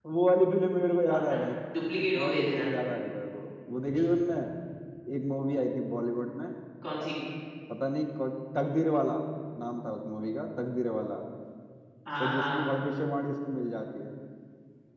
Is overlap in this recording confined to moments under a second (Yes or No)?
Yes